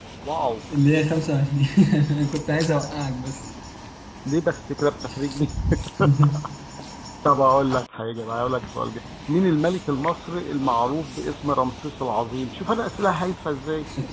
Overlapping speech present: No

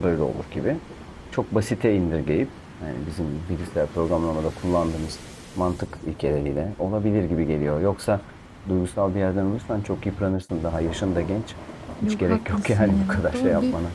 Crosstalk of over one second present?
Yes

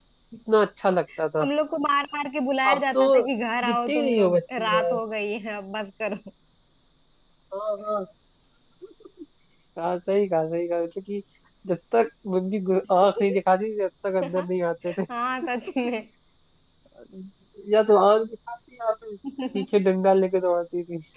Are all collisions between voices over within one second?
No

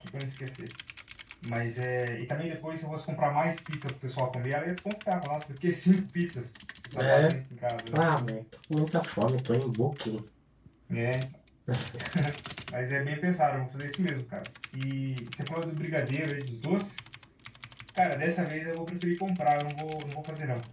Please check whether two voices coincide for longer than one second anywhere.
No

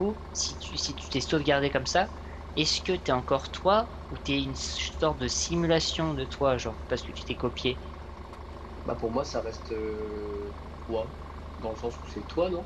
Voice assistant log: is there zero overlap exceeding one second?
Yes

